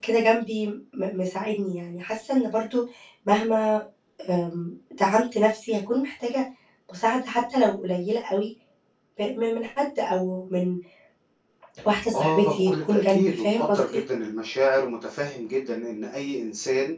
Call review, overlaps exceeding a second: present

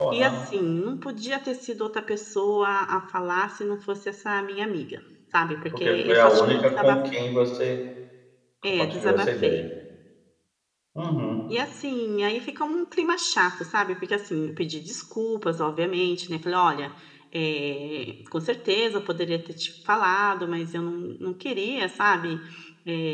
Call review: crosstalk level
present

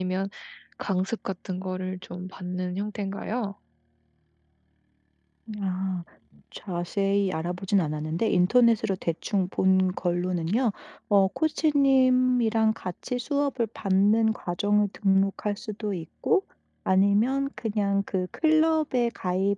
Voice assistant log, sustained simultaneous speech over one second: none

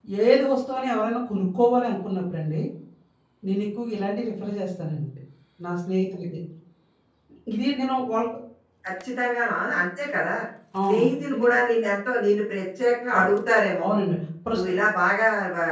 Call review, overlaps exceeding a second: none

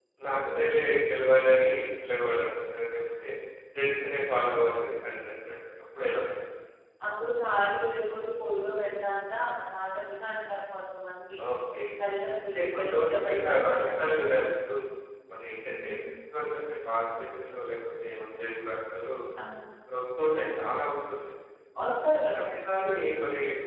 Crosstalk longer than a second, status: present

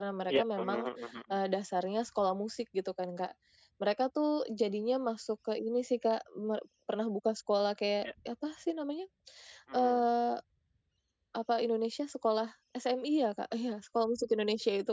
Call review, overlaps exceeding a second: none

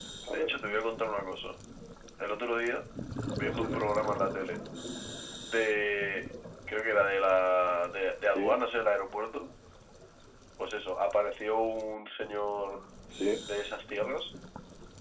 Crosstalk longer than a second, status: none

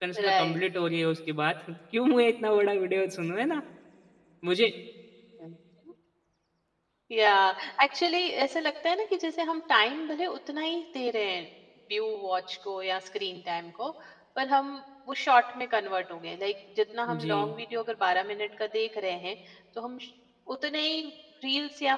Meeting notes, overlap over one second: none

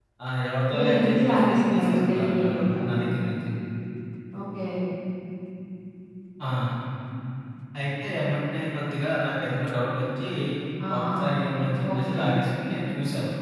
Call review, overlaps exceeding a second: present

